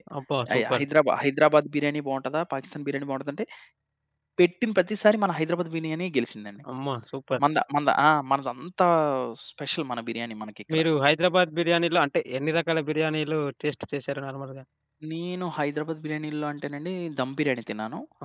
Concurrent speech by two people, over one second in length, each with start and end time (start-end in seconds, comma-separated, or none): none